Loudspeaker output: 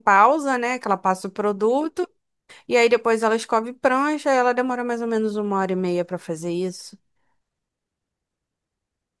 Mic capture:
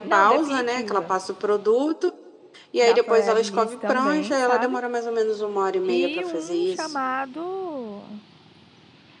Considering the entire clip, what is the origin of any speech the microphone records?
both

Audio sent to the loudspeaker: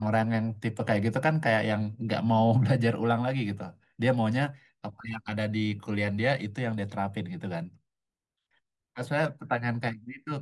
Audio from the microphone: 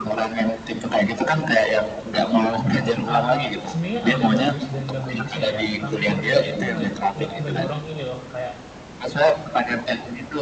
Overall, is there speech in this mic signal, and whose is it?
both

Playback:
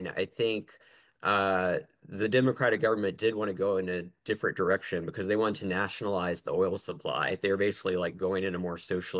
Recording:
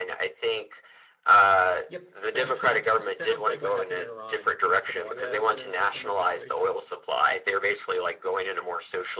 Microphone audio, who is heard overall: both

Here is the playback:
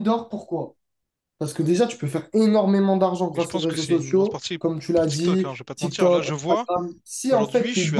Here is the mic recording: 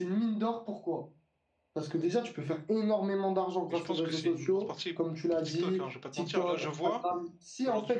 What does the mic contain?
echo only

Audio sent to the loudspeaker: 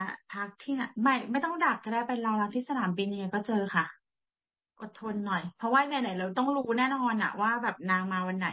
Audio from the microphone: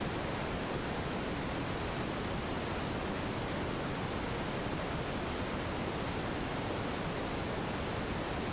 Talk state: neither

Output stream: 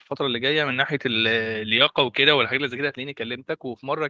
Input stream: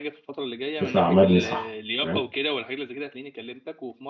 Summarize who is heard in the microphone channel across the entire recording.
both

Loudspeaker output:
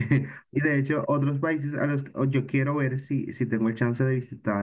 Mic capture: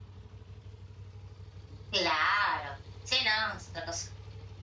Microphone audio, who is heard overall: user only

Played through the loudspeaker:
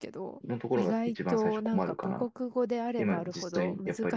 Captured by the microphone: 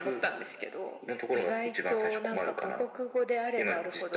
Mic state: echo only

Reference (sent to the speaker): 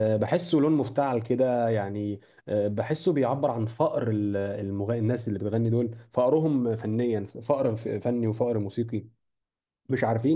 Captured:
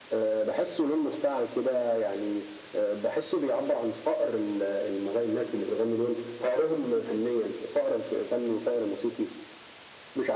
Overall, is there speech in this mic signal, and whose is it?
echo only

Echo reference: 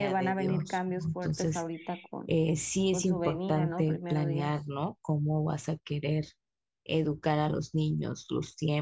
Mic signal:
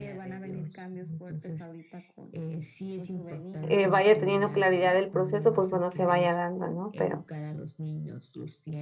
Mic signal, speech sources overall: both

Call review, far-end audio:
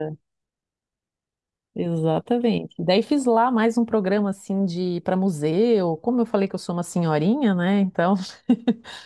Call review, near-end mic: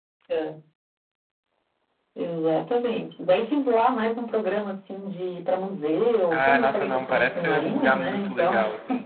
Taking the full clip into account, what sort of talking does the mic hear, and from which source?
both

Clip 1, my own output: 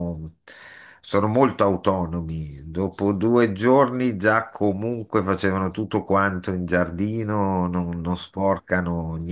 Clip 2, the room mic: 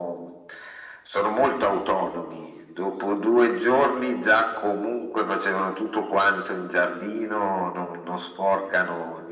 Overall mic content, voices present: echo only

